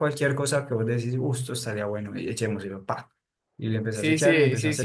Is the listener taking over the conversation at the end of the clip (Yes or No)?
Yes